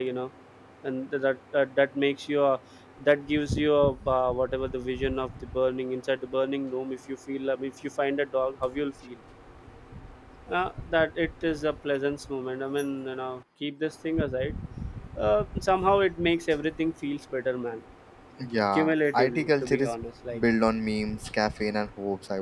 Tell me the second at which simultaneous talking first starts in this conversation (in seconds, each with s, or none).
18.7 s